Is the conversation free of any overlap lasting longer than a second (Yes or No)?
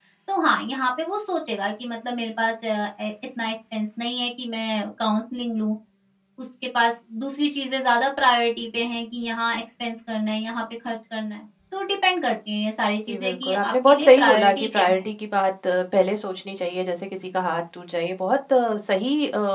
No